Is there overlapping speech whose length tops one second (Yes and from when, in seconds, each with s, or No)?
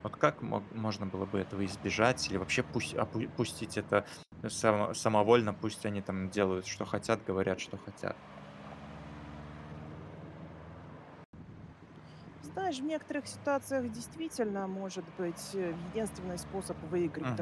No